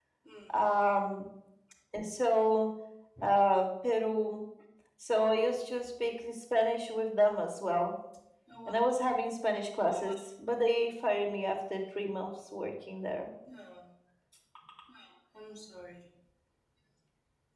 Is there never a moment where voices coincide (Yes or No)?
Yes